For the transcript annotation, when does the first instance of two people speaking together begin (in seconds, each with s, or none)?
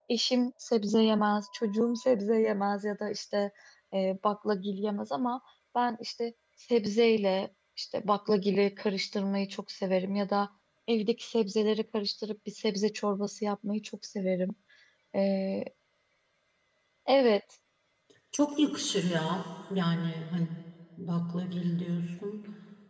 none